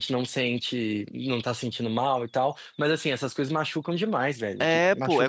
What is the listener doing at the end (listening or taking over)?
taking over